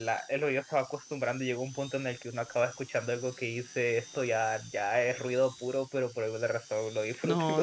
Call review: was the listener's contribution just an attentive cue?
No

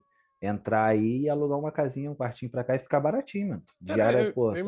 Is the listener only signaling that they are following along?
No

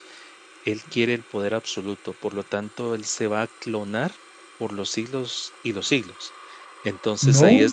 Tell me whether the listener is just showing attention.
Yes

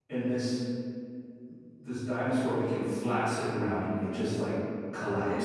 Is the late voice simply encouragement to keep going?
Yes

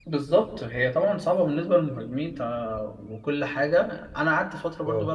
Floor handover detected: No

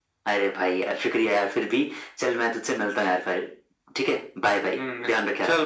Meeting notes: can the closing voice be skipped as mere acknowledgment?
No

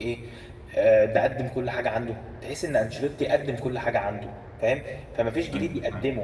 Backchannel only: Yes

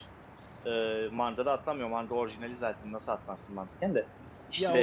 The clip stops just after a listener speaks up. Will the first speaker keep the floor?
No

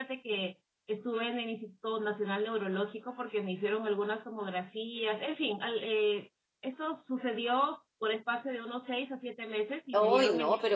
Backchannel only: No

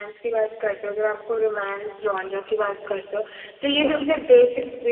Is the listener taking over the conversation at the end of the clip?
No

